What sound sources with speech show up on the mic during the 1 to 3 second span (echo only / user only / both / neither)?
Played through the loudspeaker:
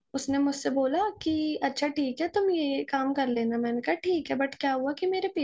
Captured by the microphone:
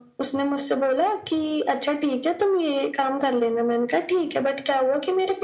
echo only